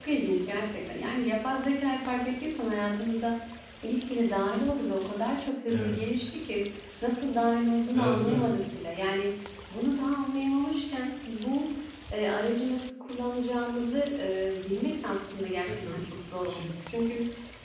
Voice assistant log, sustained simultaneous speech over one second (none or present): none